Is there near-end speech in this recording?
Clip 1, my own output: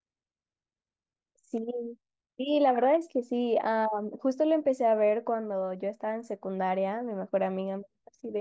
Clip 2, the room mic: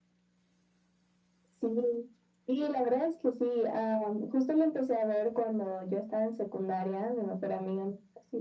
No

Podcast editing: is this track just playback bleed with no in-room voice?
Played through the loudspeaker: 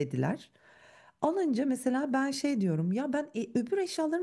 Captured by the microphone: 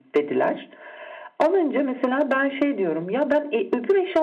Yes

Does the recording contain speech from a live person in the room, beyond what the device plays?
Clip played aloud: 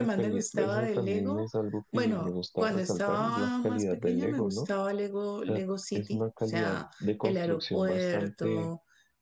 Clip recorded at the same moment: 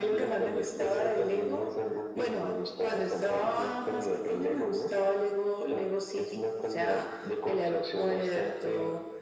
No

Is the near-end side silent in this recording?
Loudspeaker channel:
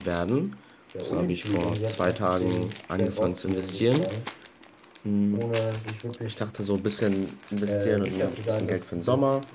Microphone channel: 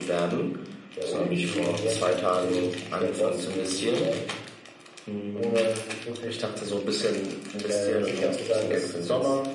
Yes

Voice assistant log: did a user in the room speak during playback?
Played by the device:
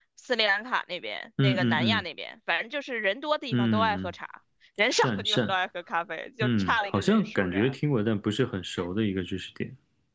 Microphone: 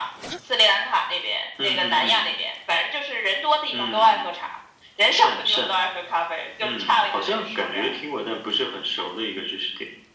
No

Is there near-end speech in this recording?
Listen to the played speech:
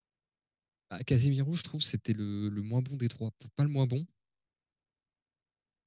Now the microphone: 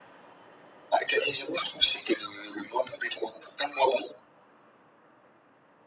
No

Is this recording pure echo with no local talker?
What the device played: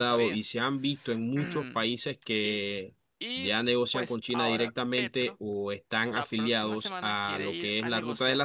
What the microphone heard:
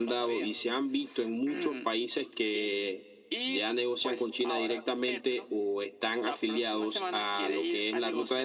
Yes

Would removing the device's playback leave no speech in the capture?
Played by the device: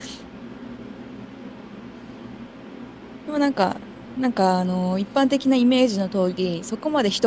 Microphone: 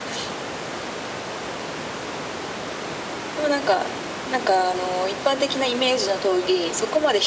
Yes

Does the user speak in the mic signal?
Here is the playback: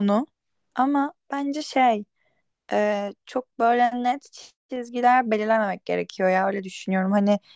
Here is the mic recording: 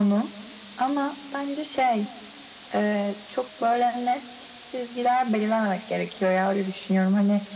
No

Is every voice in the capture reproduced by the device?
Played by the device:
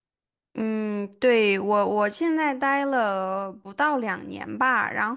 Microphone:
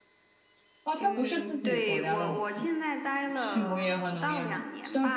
No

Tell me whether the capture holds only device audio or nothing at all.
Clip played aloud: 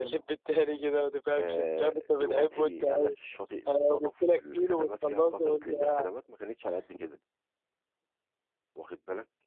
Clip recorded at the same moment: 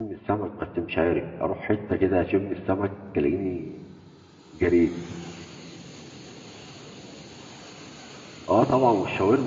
No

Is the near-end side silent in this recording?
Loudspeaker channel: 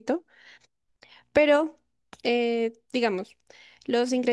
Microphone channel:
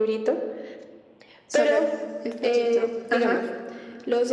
No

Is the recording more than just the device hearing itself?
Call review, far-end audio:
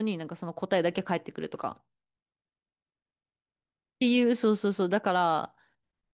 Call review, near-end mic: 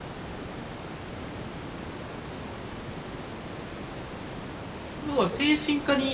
Yes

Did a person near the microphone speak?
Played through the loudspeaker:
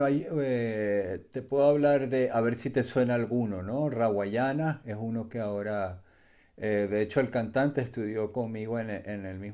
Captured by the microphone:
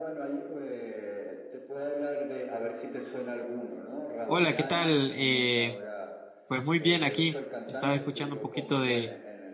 Yes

